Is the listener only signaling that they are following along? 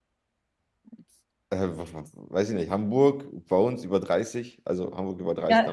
No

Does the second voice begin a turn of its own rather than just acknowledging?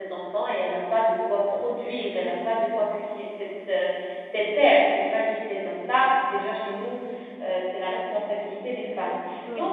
No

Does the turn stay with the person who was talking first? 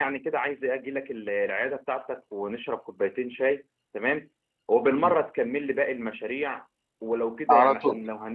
Yes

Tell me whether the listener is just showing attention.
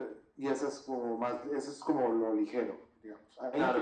Yes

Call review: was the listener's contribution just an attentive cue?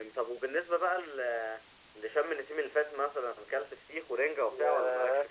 No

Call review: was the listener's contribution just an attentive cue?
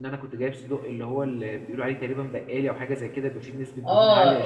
No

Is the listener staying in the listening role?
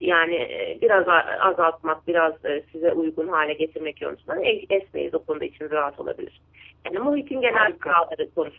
Yes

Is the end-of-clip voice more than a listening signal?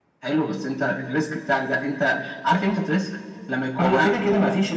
Yes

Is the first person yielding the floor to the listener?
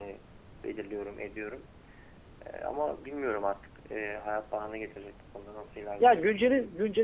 Yes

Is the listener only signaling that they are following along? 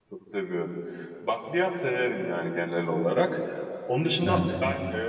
Yes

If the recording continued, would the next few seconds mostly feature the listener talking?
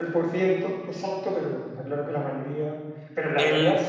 No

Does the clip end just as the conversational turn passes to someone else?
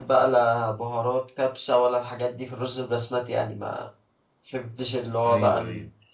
No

